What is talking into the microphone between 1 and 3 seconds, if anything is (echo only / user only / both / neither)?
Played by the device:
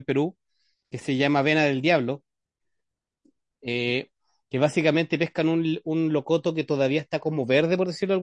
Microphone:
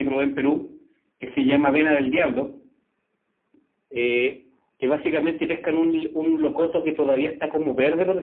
echo only